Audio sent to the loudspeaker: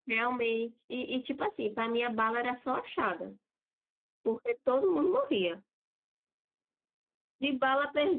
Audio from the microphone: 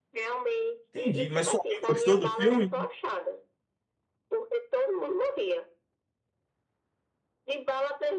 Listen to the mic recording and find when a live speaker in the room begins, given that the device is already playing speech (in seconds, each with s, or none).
0.9 s